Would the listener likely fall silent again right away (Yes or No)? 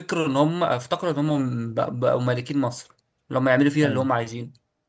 Yes